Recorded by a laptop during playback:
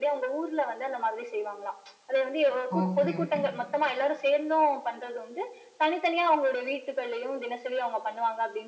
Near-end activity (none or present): present